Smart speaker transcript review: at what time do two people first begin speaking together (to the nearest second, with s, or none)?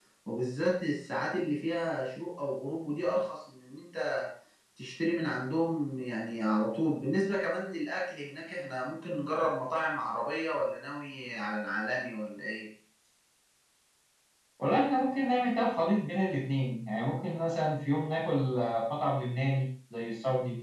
none